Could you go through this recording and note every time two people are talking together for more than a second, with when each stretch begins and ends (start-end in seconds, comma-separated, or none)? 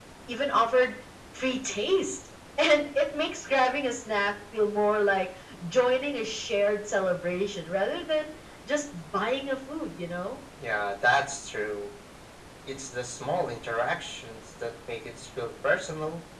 none